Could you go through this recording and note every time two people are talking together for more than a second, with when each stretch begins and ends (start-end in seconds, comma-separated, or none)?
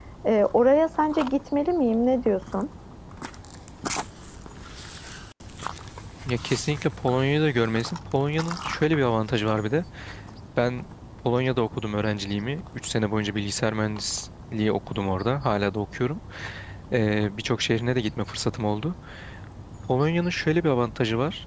none